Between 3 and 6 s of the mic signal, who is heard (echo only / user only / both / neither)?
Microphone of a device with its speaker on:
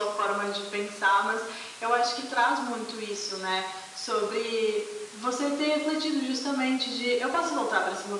echo only